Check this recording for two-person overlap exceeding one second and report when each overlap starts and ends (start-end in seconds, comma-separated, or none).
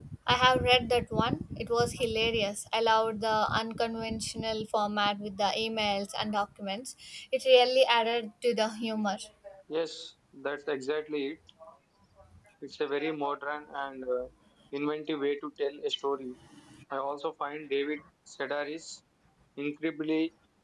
none